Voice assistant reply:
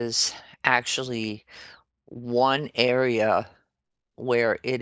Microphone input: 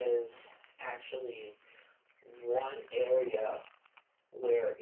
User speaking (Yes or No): No